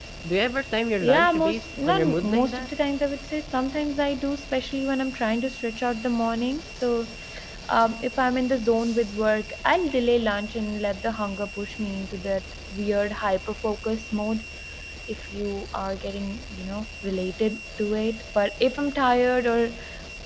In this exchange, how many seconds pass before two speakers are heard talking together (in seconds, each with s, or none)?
1.0 s